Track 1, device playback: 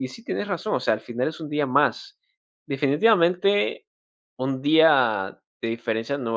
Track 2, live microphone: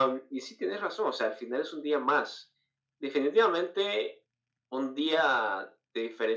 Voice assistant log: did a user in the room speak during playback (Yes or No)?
No